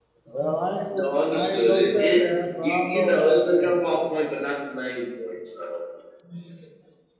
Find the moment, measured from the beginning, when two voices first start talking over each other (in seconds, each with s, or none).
0.9 s